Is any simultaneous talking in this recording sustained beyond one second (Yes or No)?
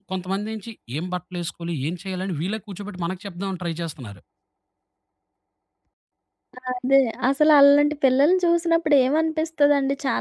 No